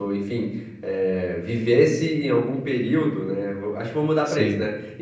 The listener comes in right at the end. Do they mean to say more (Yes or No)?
No